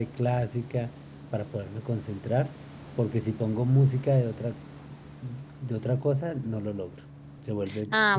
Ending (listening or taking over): taking over